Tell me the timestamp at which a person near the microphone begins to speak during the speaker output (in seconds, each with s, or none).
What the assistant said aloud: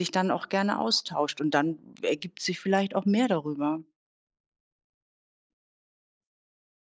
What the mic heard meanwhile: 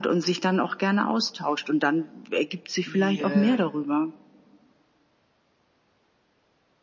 2.8 s